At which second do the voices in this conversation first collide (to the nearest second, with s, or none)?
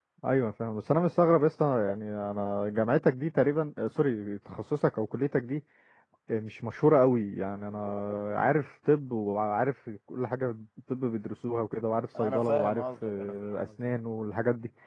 12 s